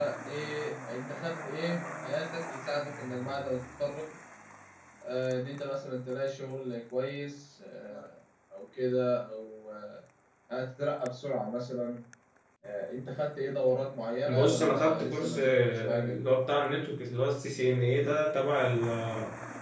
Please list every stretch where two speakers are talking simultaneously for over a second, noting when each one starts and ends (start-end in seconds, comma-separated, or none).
14.2-16.2